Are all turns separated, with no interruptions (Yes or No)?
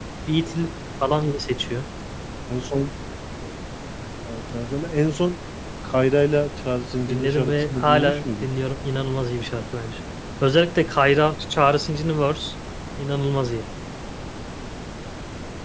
No